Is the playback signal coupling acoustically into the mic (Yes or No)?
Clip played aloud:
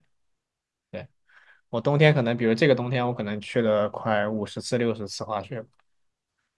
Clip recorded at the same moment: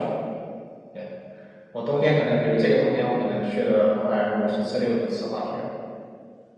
Yes